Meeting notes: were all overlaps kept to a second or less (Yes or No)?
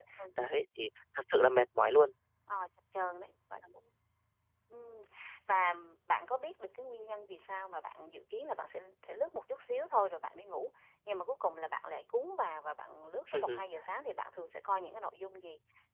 Yes